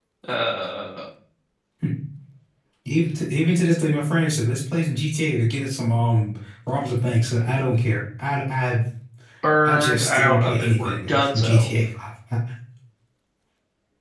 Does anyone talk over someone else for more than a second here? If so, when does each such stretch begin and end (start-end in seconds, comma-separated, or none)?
9.6-11.7